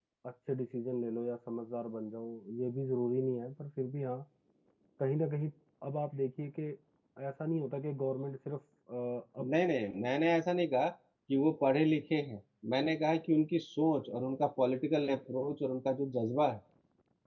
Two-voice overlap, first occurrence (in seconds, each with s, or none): none